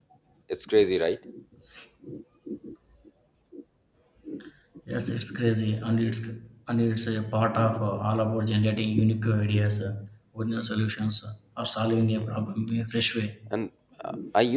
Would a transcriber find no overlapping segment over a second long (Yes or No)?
Yes